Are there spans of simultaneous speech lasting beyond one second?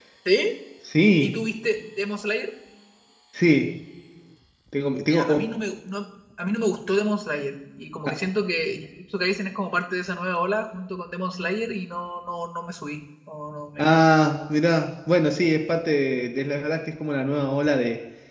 No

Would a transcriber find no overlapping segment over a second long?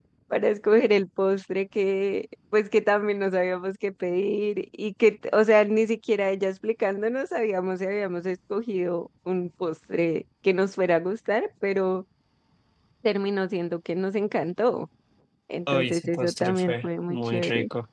No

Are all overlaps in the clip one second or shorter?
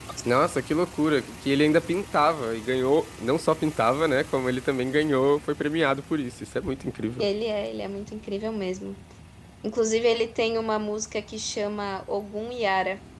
Yes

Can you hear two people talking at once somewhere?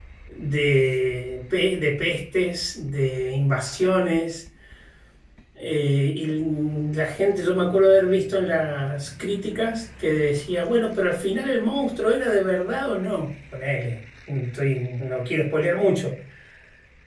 No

